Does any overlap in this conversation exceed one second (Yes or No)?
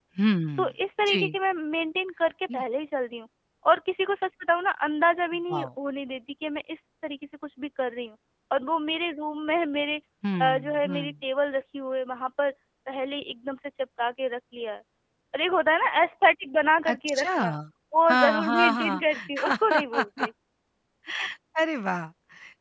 Yes